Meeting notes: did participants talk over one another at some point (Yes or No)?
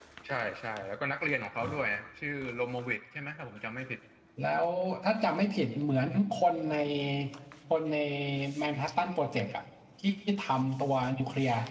No